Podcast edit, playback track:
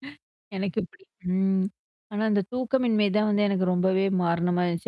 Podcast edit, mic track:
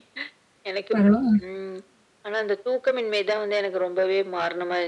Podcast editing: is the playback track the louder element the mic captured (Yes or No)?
No